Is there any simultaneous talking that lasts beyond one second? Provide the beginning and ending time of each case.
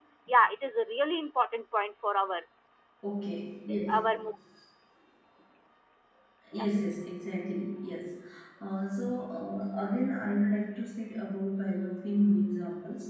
none

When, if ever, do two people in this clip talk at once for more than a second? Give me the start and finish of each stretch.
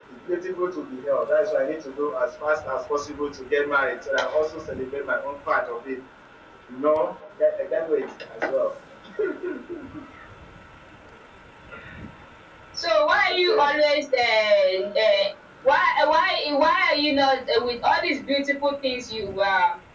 none

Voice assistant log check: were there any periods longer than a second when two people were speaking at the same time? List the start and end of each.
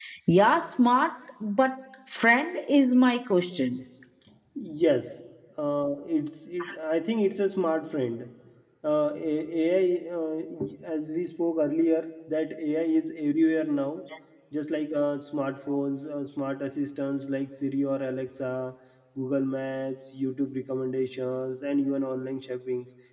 none

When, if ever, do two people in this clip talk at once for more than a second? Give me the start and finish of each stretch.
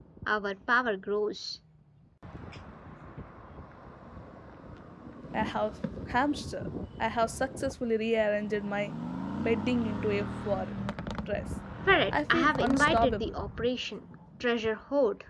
12.1-13.3

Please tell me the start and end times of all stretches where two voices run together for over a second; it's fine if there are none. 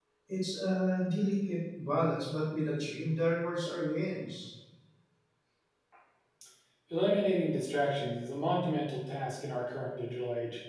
none

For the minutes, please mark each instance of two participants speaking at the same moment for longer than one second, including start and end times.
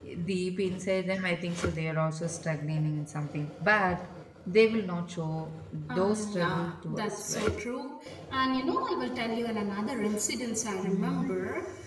5.9-7.5

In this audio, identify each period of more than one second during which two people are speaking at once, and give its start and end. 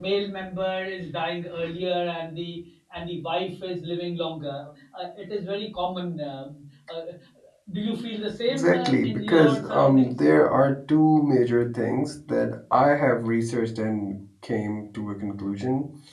8.5-10.1

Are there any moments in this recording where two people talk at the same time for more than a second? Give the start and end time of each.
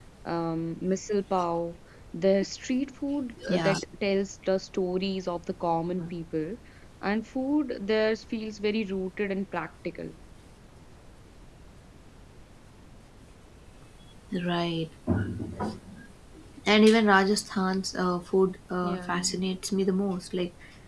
none

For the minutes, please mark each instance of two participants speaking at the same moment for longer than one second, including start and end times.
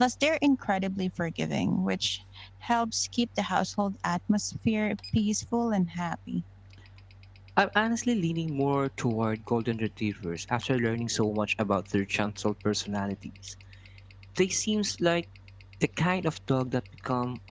none

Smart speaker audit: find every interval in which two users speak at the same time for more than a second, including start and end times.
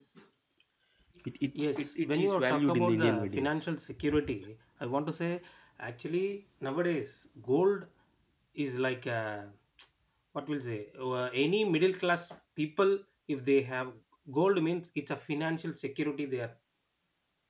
1.8-3.6

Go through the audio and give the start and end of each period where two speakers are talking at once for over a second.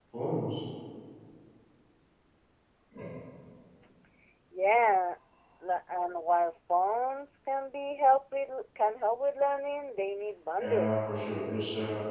none

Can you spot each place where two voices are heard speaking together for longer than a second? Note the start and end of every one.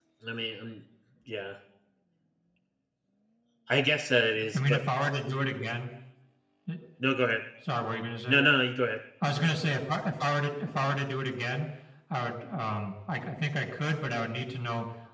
none

